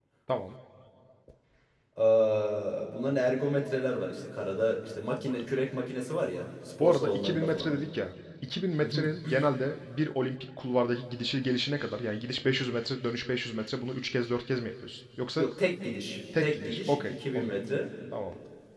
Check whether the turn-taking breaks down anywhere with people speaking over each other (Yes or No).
Yes